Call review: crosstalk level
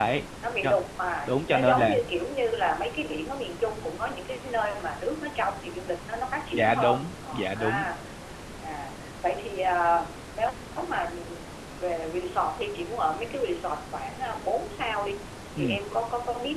present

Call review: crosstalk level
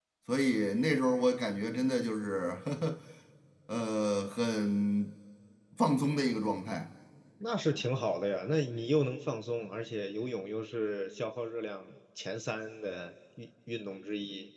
none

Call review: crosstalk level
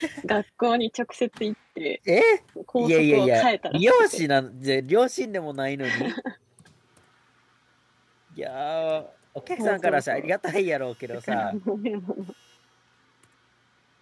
present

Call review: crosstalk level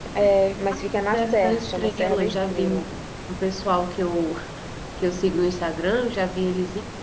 present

